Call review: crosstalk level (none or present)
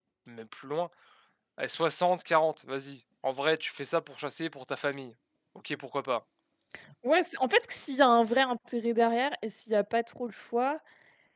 none